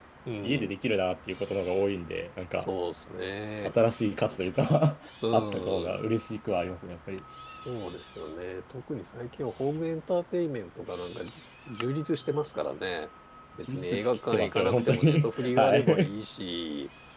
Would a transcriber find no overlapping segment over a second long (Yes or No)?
No